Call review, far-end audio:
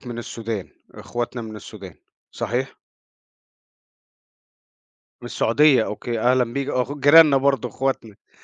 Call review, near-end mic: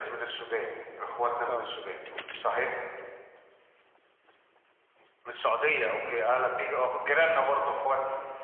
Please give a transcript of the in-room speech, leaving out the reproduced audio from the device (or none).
آه،